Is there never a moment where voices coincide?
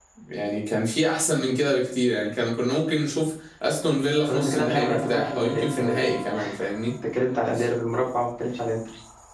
No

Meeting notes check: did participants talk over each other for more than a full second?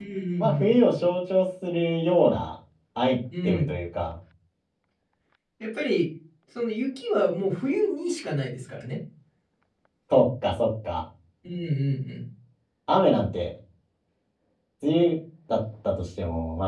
No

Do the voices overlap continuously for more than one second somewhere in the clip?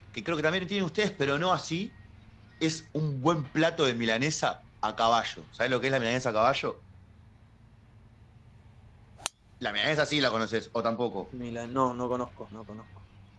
No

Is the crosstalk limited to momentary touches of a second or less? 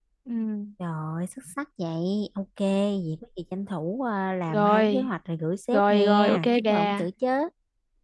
No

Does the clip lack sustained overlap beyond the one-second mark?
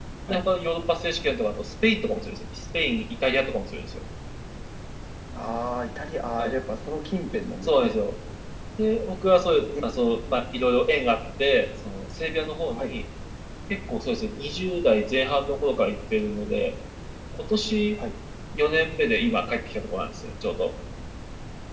Yes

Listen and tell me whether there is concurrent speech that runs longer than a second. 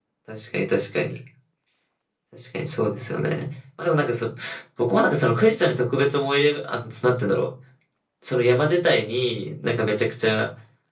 No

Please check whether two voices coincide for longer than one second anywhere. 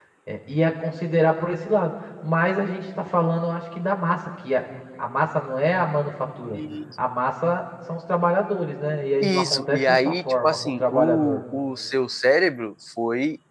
Yes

